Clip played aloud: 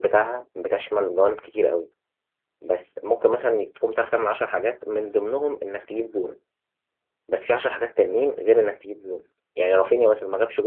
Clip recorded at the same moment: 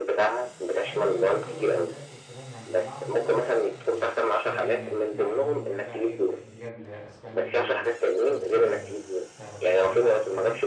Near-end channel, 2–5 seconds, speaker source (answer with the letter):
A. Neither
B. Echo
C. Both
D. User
C